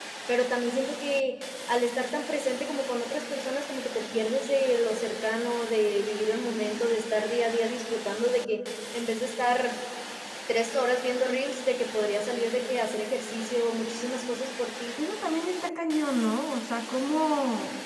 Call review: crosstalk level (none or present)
none